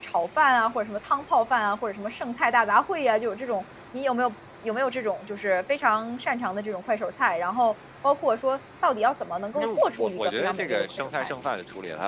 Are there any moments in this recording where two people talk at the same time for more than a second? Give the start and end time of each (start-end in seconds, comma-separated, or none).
9.5-11.3